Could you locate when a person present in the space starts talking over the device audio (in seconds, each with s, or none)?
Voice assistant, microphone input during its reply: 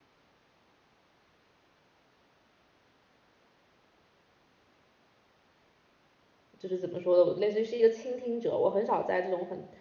6.6 s